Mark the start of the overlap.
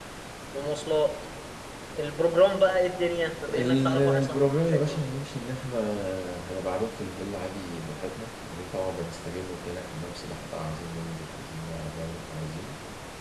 3.5 s

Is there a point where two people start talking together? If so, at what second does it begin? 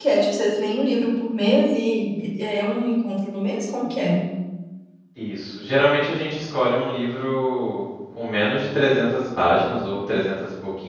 none

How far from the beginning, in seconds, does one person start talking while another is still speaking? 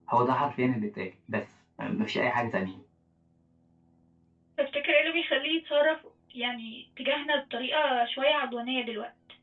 none

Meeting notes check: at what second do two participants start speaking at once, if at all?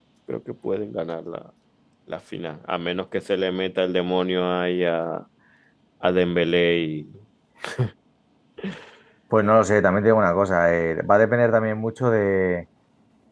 none

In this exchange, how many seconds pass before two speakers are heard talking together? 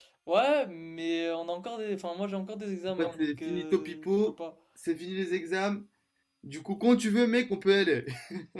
2.9 s

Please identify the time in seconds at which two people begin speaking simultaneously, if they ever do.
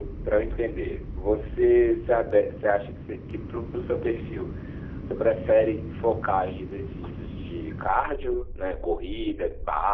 none

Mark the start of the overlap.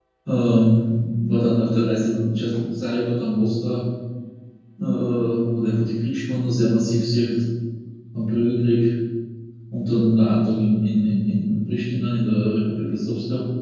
none

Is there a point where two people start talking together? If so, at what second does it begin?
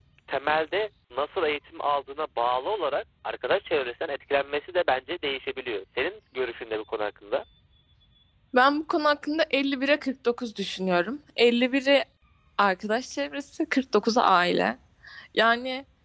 none

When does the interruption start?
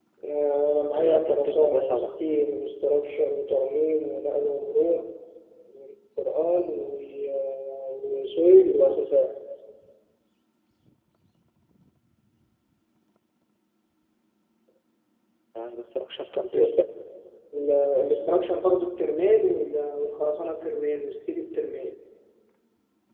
0.9 s

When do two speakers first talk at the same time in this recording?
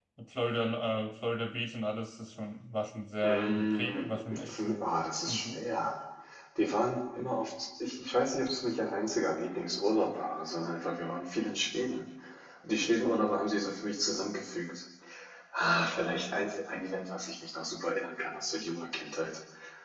3.2 s

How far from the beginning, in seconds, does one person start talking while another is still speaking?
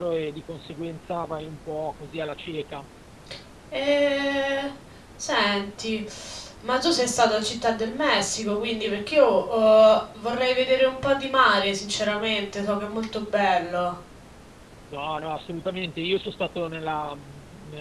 none

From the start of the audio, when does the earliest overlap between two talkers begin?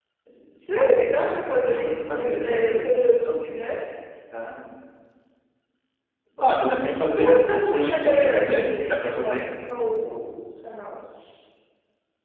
1.6 s

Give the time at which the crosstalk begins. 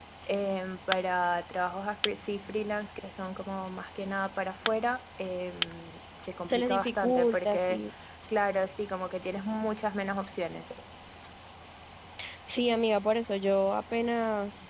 6.5 s

